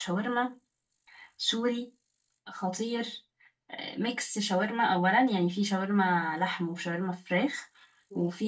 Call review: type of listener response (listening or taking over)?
listening